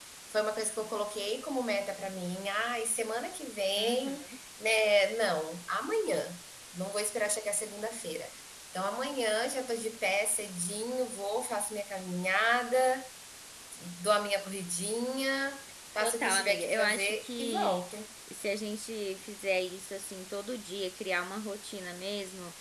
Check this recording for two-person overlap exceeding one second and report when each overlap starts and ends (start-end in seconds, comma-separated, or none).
16.0-17.8